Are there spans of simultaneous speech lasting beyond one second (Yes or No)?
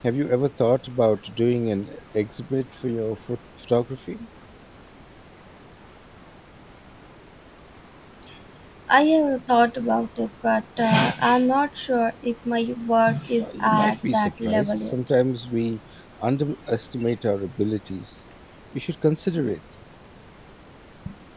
Yes